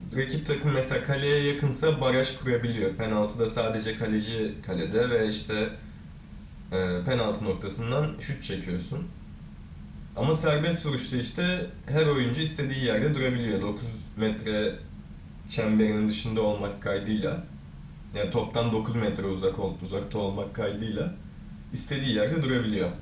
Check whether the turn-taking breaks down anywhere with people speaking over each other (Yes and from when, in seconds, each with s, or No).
No